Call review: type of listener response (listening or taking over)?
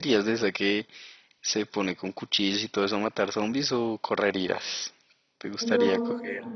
taking over